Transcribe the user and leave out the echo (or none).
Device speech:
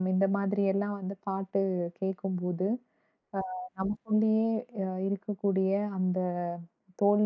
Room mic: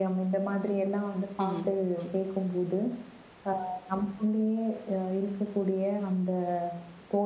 ம், ம். ம்.